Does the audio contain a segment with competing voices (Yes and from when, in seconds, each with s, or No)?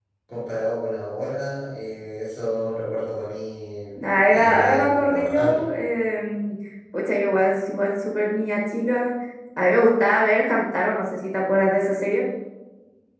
Yes, from 4.2 s